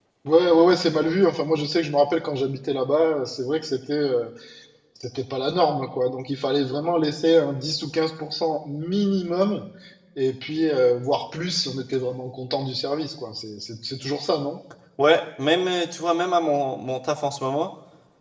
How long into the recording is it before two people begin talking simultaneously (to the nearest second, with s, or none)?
none